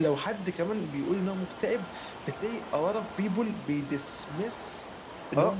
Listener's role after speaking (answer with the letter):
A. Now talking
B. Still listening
B